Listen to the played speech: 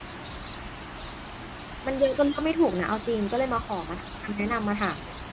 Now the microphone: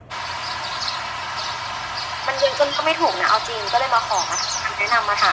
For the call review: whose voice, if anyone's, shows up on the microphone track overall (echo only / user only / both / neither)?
echo only